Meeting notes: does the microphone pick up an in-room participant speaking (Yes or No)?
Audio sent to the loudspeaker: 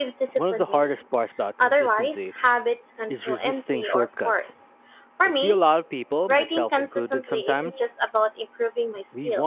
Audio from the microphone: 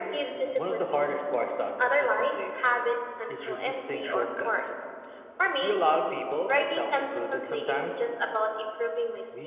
No